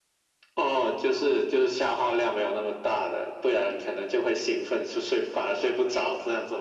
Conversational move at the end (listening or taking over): taking over